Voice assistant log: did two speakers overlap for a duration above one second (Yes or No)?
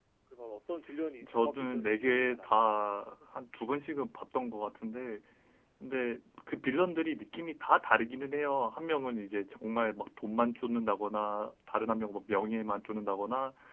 Yes